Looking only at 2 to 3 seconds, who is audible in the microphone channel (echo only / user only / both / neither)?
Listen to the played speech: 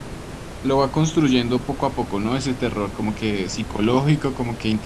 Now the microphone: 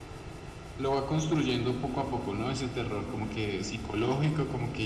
echo only